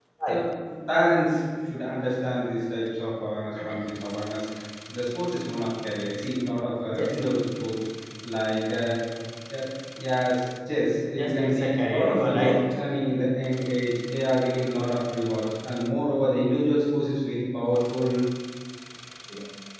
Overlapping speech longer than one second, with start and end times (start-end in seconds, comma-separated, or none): 11.2-12.6